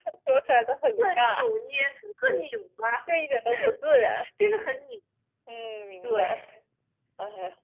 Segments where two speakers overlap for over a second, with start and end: none

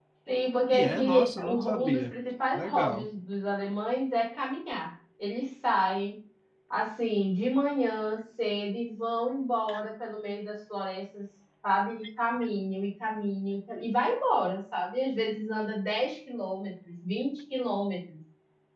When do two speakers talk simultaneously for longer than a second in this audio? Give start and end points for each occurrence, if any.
0.7-2.1

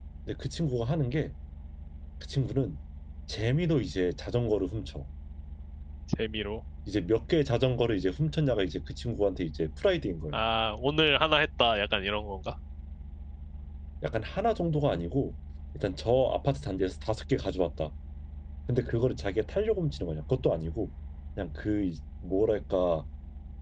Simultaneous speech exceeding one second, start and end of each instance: none

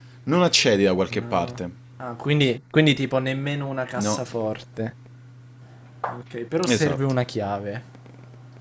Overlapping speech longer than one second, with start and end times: none

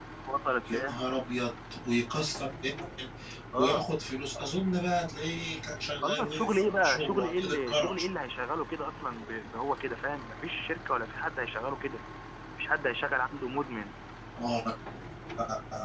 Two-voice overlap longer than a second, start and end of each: 6.0-8.0

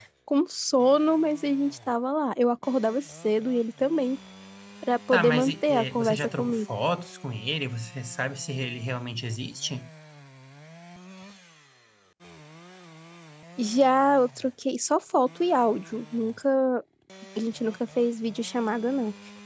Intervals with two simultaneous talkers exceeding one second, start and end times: 5.1-6.6

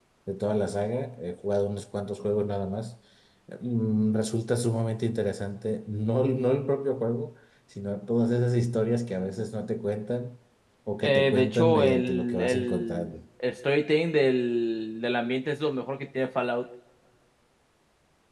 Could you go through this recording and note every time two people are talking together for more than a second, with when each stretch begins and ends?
11.0-13.1

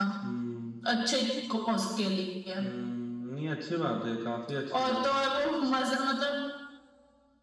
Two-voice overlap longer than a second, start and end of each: none

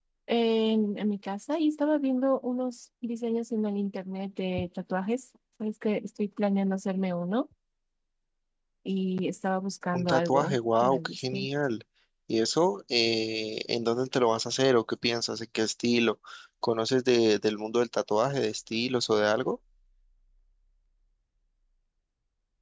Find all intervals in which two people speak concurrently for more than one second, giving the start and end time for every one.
9.9-11.5

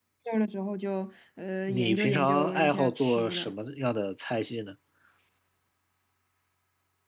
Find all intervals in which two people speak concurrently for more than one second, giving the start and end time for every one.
1.7-3.5

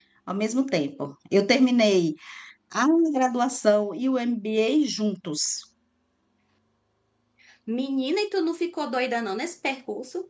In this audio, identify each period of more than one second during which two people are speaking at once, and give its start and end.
none

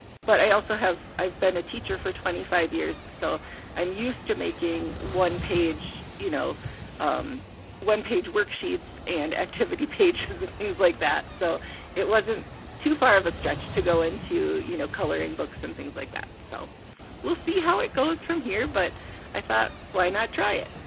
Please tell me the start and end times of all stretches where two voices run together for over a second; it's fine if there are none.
none

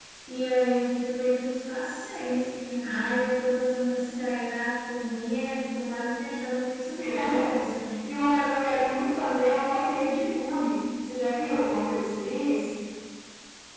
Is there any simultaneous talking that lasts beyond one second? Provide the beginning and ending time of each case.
none

